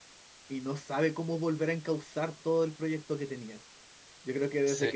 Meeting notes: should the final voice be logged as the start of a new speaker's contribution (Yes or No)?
No